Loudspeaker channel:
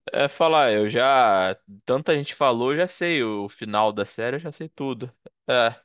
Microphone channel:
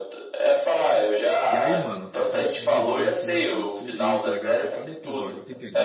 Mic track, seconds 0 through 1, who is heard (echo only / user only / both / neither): echo only